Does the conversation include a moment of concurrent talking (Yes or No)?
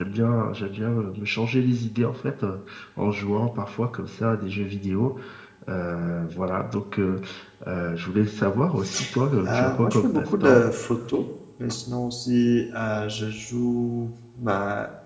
Yes